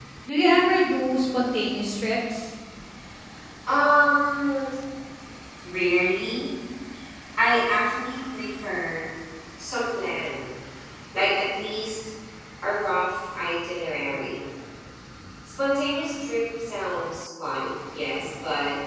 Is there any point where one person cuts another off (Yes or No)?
No